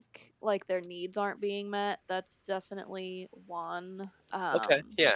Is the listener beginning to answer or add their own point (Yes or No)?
Yes